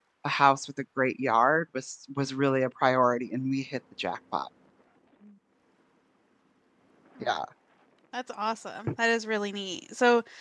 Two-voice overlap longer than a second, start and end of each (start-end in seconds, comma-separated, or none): none